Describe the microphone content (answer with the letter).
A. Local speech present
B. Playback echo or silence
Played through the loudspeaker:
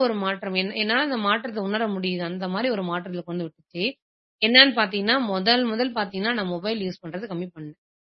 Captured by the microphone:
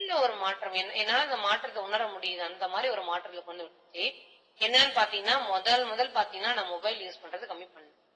B